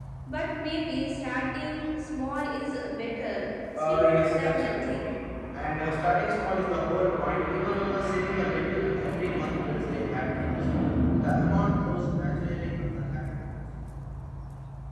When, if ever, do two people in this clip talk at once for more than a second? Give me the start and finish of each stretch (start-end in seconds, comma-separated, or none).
3.8-5.1